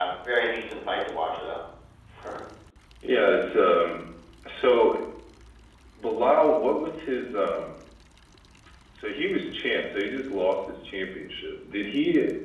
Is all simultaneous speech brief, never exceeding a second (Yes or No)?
Yes